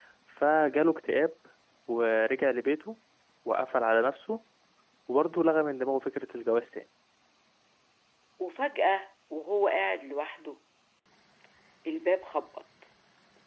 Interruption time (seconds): none

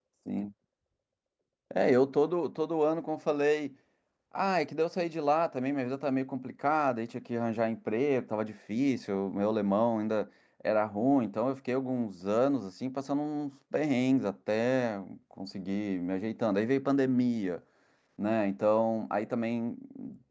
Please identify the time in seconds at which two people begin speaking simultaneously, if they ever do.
none

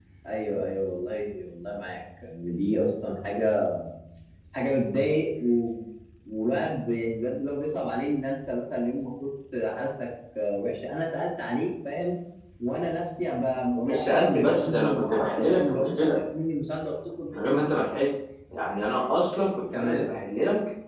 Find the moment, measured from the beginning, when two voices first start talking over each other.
13.8 s

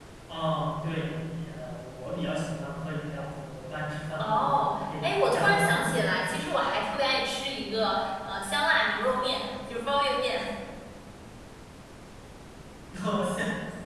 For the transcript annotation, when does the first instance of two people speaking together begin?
4.2 s

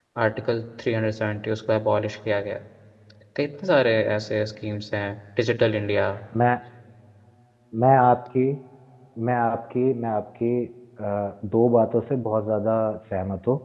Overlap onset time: none

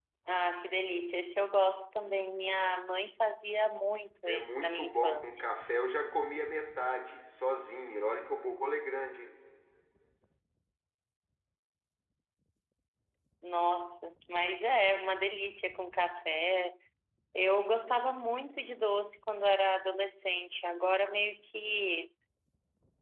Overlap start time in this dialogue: 4.2 s

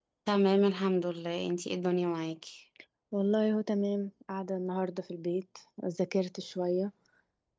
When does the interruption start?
none

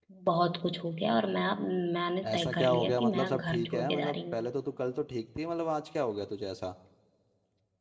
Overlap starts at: 2.2 s

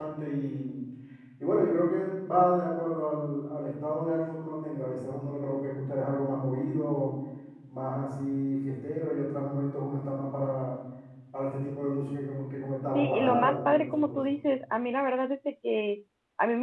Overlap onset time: 12.9 s

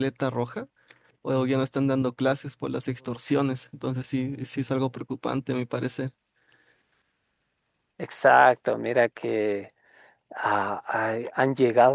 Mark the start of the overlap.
none

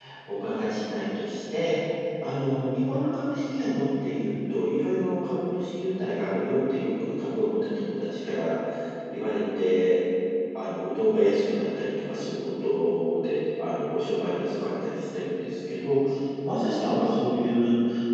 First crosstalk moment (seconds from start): none

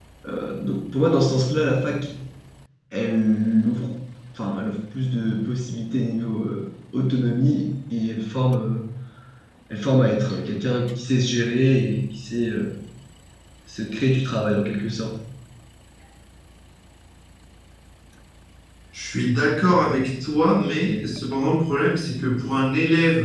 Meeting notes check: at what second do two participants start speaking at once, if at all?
none

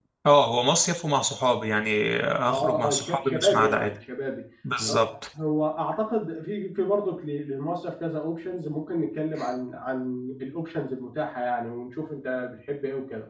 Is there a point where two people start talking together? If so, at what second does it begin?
2.5 s

